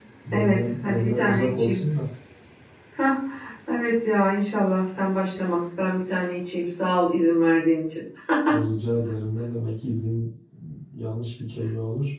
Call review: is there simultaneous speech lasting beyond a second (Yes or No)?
Yes